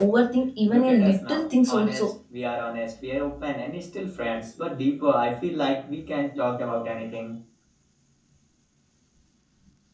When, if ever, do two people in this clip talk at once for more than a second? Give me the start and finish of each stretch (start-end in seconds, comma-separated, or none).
0.6-2.1